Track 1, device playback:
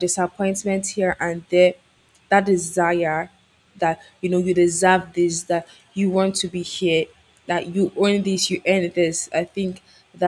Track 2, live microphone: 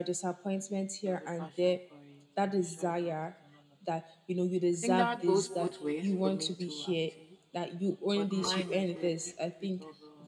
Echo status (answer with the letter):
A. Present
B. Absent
A